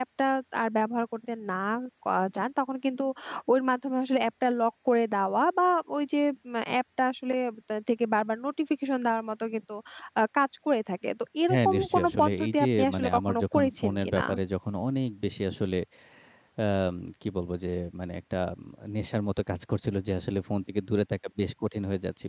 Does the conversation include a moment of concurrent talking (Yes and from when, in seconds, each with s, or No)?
Yes, from 11.5 s